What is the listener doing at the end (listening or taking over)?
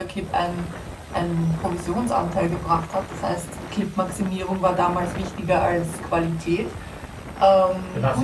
taking over